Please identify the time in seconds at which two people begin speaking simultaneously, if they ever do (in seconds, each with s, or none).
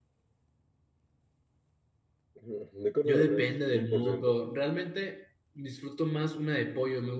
3.0 s